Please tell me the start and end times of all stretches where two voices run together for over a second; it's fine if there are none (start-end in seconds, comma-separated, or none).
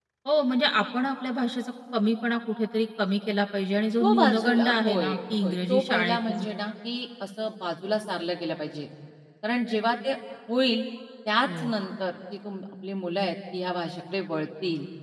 4.0-6.4